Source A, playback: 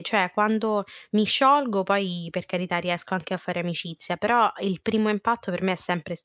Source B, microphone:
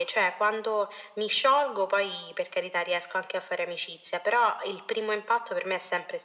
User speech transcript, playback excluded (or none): none